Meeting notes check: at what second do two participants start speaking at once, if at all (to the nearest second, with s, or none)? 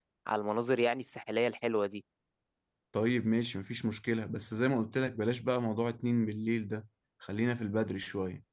none